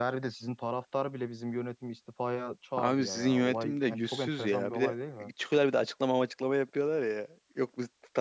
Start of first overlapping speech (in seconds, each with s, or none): 2.8 s